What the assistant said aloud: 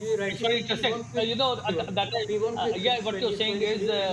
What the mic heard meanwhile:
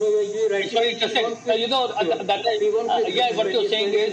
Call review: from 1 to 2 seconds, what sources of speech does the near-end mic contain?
echo only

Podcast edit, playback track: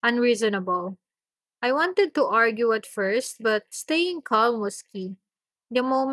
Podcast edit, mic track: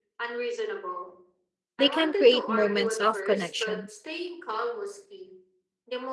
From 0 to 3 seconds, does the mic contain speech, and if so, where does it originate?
both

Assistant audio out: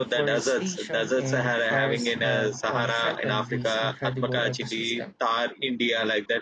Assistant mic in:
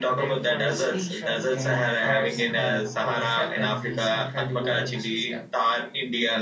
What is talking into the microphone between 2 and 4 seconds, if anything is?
echo only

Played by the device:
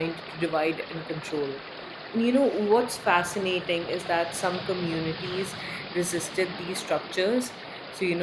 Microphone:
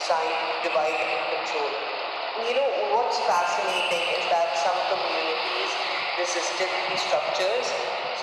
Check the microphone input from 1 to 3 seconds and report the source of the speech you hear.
echo only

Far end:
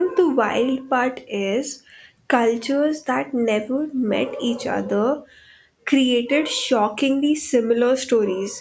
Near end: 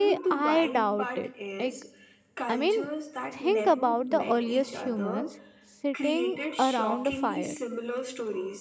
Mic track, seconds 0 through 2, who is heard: both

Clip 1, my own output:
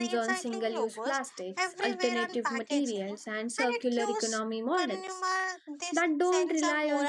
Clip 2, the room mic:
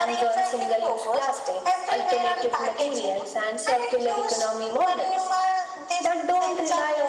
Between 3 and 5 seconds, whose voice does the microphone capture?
echo only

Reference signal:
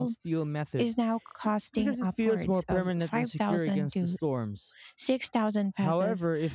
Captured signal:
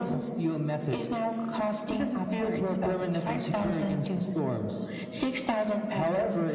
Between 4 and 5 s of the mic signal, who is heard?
echo only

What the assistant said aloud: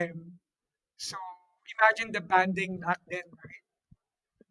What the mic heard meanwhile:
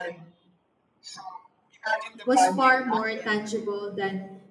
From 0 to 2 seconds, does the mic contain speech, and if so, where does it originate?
echo only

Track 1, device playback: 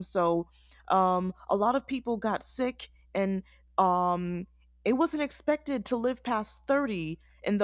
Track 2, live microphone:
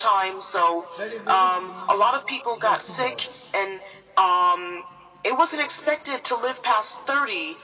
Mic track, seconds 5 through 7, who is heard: echo only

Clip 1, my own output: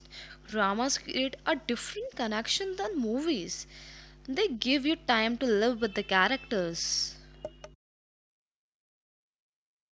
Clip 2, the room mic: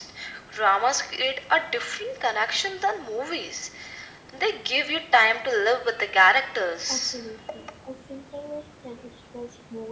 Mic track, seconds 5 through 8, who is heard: both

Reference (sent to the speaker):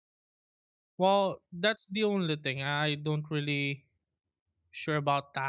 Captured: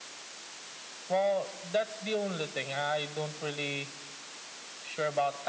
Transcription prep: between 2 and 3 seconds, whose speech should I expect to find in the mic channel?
echo only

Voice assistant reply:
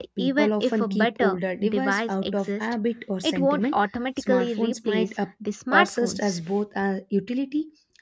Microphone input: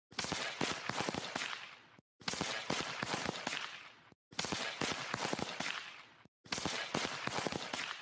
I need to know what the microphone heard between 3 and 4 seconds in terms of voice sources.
neither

